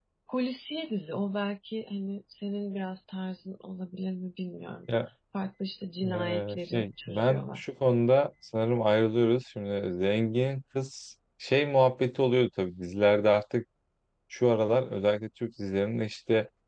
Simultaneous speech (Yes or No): Yes